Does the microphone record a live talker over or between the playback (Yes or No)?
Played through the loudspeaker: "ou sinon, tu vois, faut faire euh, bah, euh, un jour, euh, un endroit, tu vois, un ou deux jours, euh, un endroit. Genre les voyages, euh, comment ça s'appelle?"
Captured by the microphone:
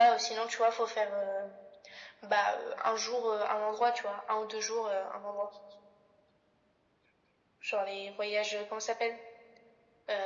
No